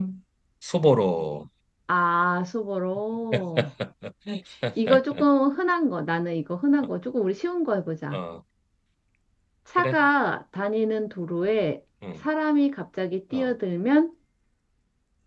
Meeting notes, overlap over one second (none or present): none